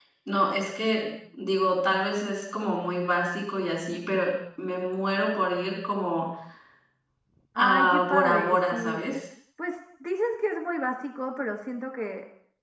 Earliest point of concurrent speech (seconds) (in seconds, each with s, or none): 7.6 s